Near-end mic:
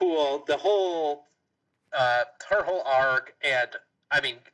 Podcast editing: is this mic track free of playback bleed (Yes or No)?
No